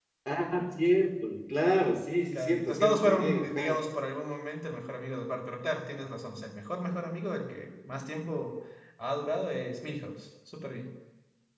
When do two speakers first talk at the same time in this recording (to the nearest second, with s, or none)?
2 s